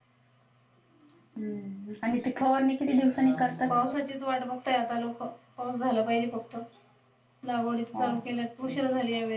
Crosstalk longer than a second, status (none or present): none